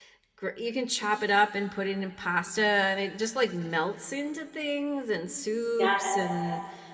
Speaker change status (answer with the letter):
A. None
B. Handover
A